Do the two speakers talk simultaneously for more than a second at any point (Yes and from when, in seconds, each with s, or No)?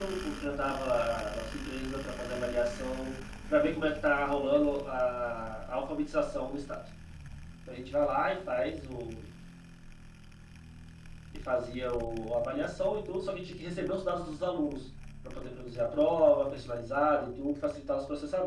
No